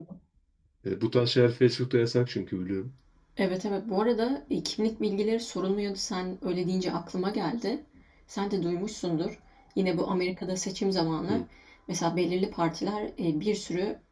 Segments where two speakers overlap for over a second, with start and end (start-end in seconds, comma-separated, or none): none